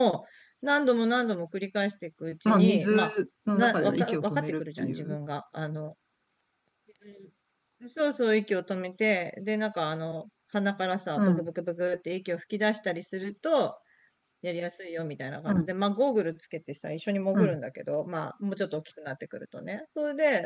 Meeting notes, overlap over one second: present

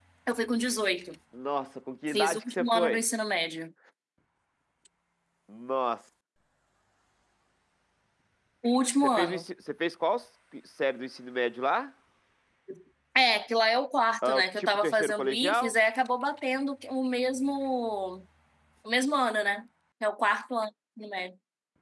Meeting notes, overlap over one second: present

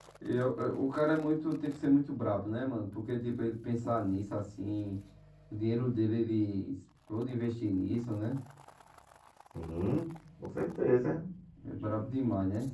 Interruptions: none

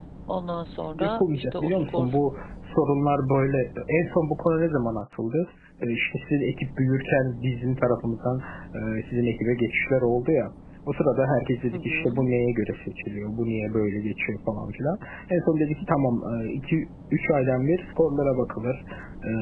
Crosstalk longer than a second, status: present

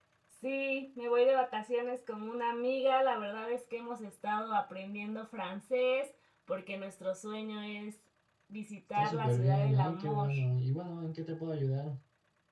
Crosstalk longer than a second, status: present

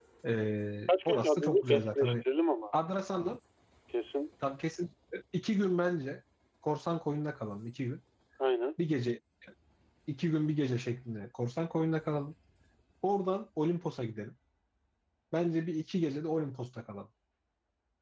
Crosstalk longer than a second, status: present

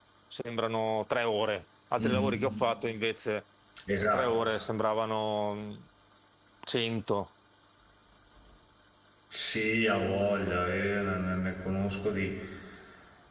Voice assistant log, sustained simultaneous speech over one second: none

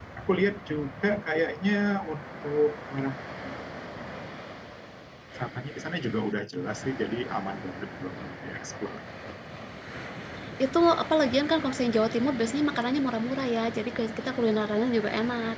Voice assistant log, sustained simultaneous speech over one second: none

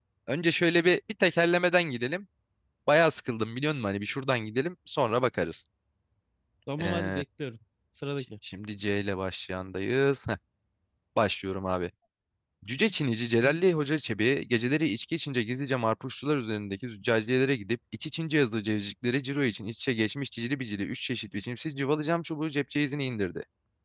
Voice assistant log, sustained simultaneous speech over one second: none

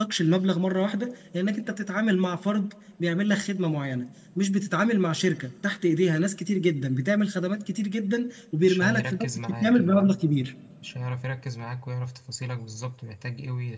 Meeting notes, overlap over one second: present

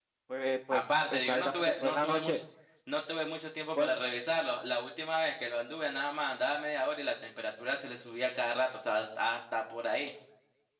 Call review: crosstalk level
present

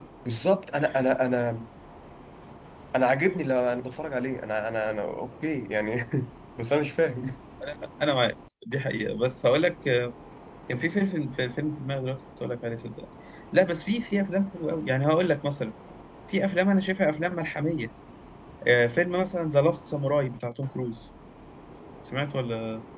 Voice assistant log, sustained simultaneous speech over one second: none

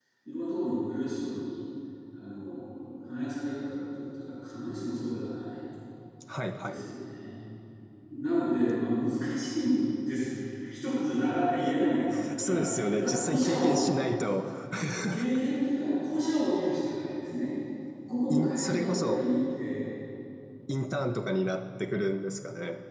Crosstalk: present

